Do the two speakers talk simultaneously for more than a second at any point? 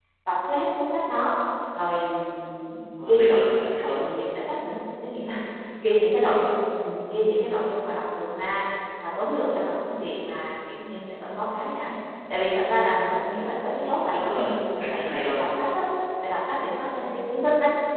Yes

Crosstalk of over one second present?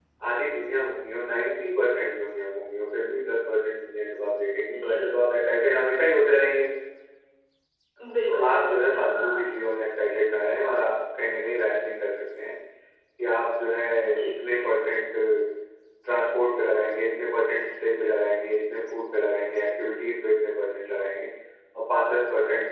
Yes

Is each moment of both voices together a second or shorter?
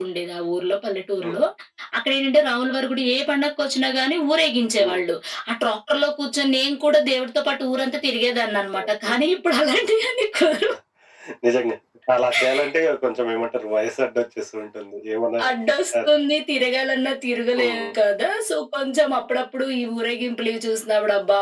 Yes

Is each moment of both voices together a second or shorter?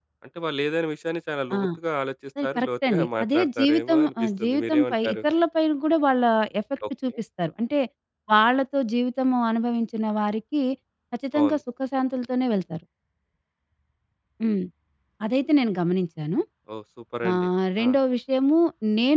No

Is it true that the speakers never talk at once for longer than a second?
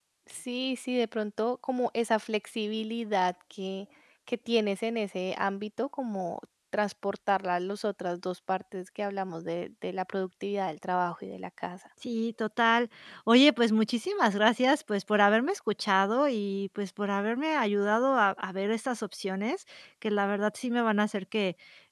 Yes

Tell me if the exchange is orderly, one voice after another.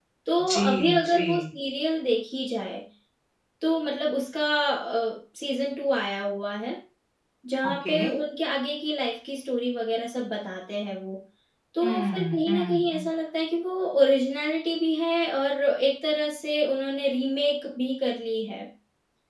No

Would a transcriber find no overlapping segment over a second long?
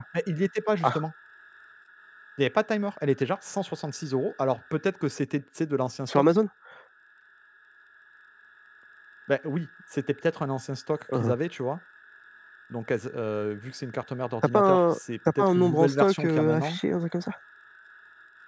No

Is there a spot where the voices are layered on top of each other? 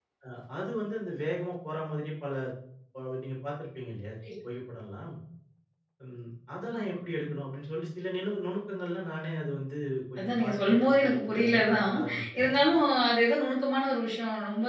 Yes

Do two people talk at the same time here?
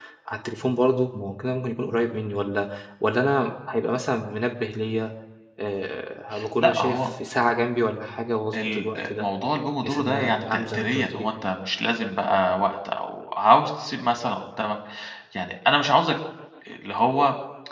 Yes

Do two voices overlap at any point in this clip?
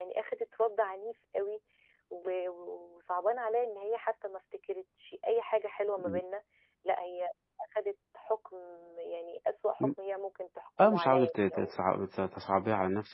Yes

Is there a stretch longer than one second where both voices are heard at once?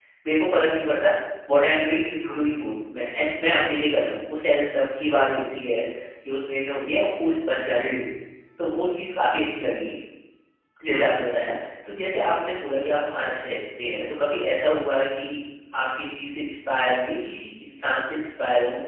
No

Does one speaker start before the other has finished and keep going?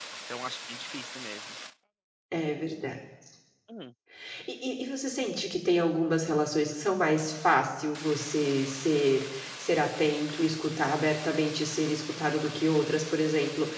No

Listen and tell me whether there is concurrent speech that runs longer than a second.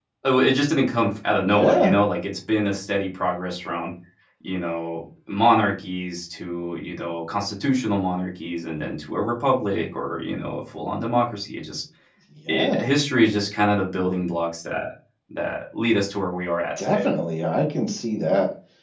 No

